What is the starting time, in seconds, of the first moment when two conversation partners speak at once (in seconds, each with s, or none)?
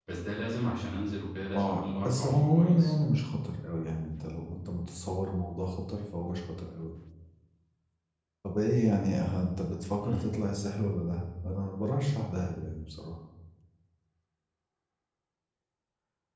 1.6 s